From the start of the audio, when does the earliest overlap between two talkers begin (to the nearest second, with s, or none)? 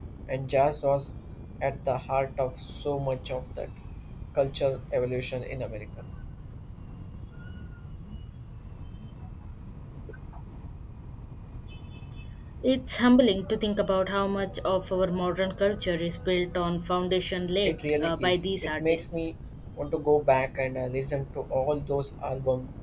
18 s